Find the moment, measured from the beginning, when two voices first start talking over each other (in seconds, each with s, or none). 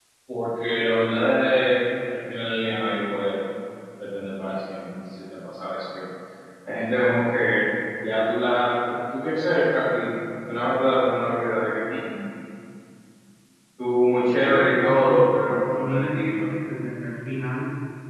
14.4 s